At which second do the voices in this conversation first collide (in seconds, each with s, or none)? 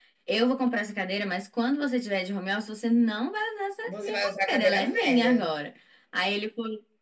3.9 s